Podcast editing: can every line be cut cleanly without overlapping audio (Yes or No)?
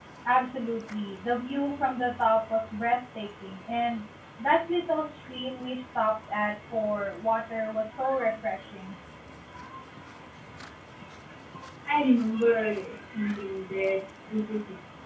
Yes